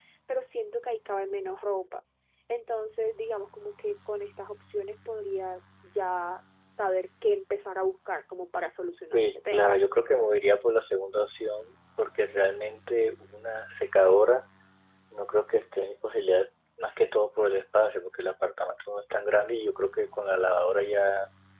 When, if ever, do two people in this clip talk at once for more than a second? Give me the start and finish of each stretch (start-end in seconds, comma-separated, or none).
none